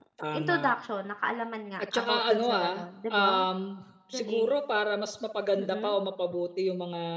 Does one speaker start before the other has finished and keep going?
Yes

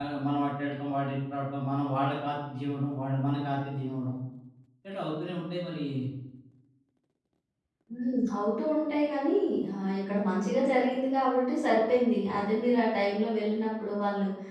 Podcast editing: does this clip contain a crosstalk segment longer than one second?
No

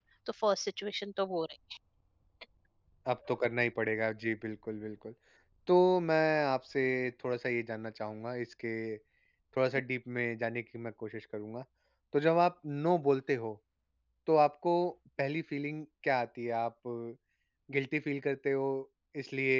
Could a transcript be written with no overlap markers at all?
Yes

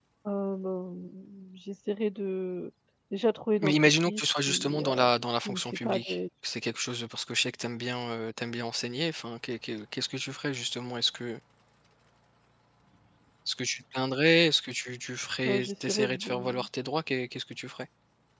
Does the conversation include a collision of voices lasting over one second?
Yes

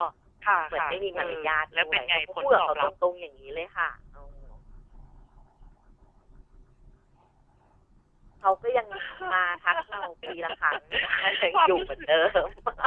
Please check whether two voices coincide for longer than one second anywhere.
Yes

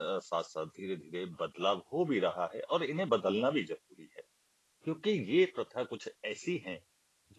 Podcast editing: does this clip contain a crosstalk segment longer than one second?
No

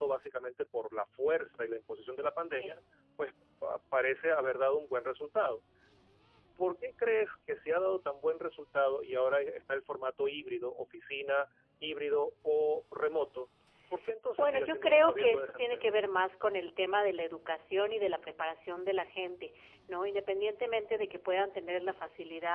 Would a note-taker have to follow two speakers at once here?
Yes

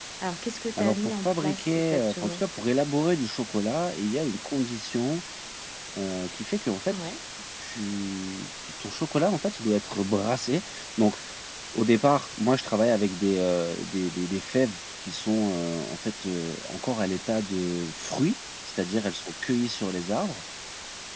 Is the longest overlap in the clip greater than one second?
Yes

